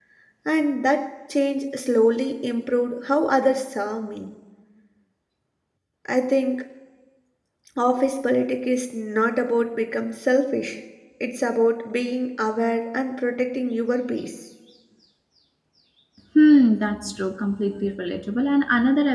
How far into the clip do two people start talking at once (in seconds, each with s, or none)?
none